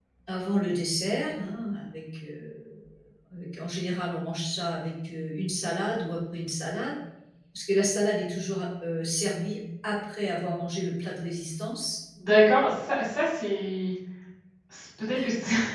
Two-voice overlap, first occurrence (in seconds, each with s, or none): none